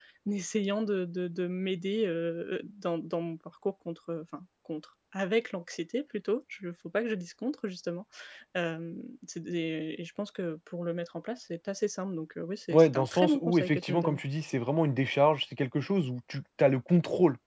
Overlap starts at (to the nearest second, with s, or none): 13 s